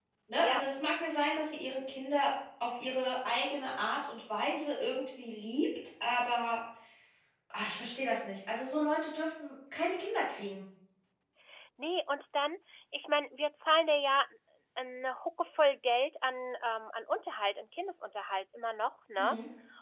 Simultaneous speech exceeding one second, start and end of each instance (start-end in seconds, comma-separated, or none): none